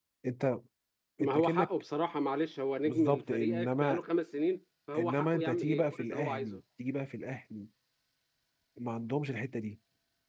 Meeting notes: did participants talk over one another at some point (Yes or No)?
Yes